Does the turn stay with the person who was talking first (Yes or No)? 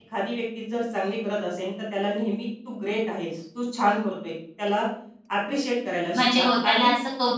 No